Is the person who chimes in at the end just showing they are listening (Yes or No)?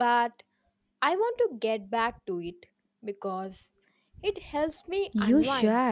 No